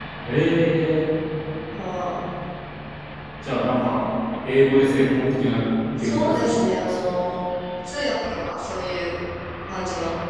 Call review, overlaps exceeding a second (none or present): present